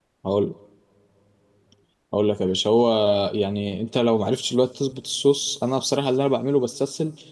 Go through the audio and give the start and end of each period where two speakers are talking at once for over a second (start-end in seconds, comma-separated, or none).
none